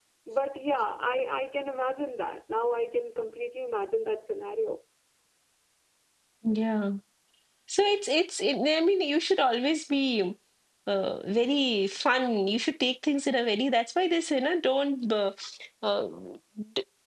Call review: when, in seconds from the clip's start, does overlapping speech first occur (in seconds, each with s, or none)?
none